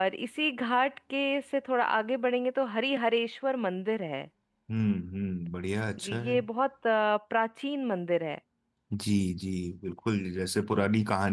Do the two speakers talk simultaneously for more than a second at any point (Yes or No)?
No